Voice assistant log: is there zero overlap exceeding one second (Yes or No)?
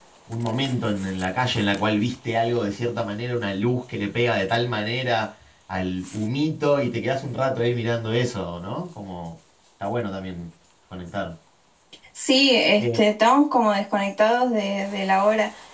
Yes